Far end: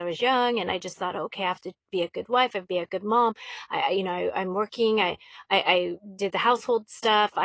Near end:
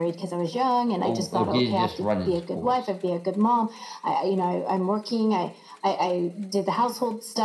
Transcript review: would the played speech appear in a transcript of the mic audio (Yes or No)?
Yes